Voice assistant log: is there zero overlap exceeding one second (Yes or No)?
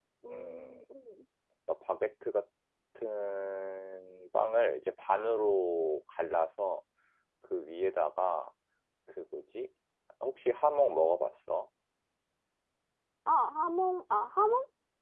Yes